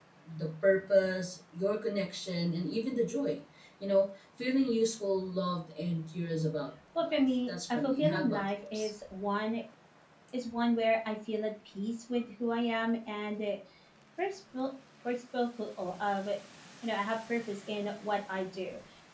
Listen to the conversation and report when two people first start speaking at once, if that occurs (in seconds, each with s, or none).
7.0 s